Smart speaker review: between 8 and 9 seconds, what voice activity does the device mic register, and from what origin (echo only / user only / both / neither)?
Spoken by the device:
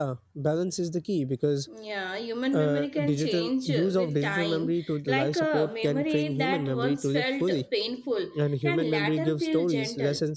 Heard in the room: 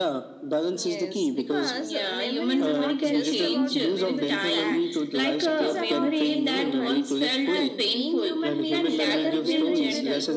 both